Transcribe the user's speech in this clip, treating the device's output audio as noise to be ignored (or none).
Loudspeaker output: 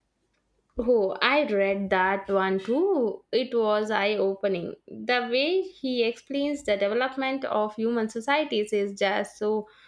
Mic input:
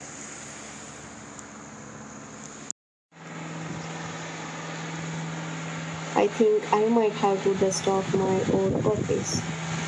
I think I might have to dust off my old copies.